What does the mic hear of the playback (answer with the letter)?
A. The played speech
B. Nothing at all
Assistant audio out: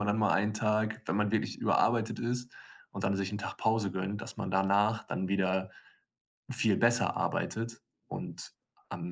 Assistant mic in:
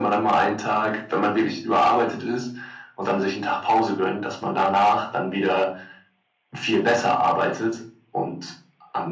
A